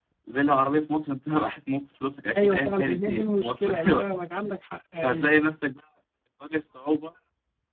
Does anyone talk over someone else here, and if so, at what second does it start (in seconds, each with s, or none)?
2.4 s